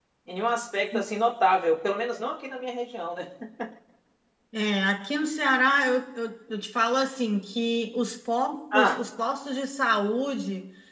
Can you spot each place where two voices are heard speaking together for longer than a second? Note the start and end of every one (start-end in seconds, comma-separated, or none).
none